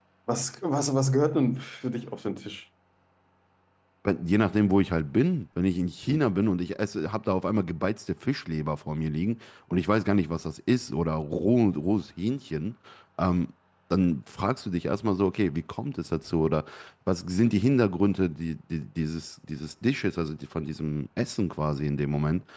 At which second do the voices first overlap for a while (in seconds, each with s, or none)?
none